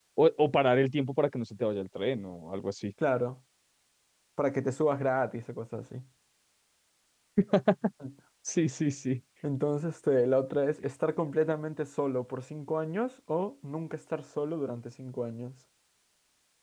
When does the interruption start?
none

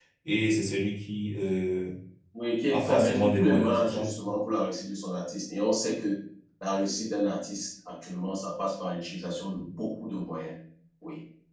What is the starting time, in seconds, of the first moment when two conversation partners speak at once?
2.7 s

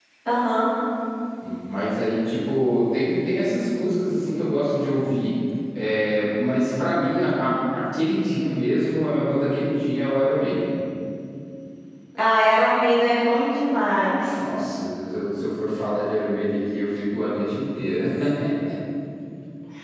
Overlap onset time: none

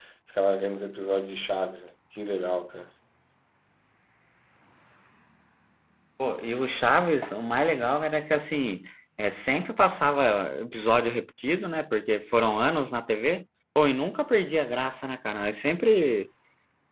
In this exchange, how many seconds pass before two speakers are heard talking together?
none

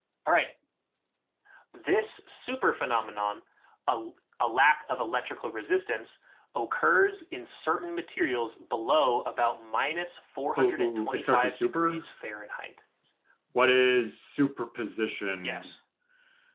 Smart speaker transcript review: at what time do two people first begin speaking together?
10.6 s

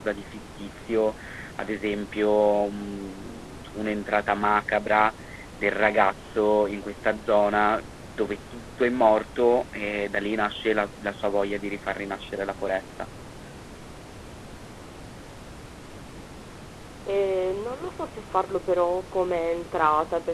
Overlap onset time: none

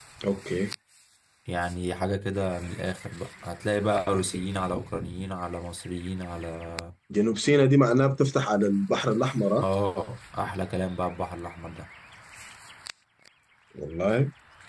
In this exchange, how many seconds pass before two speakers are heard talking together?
none

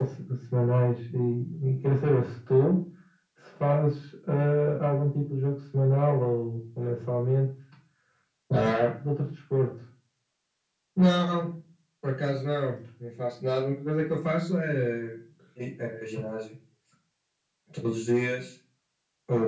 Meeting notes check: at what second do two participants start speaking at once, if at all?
none

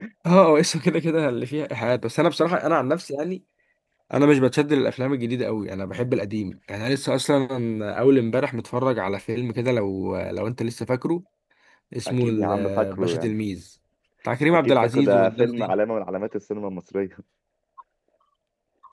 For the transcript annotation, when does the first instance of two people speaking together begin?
12.1 s

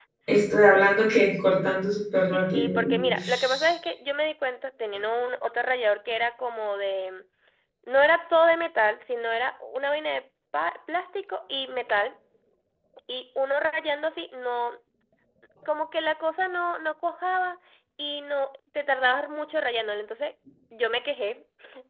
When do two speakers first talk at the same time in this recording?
2.3 s

